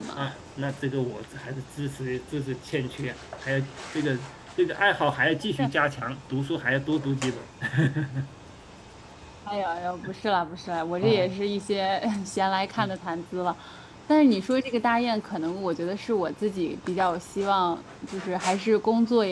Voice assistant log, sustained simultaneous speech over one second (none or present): none